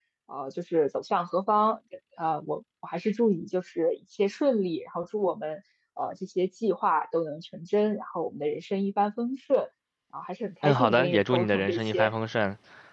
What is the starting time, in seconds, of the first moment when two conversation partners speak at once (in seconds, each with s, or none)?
10.6 s